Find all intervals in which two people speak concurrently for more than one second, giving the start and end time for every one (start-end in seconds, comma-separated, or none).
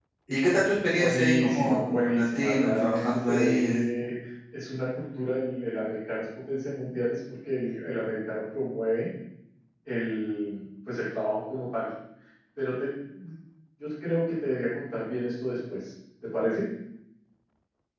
0.9-3.8